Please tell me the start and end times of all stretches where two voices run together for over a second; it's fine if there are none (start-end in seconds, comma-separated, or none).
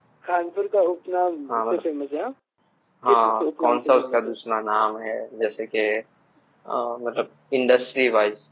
3.1-4.3